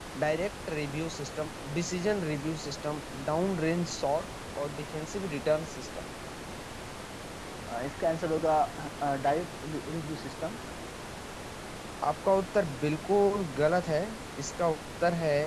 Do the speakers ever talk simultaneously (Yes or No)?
No